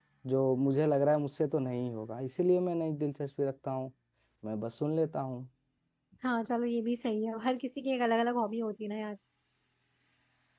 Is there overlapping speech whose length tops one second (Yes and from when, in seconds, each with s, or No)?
No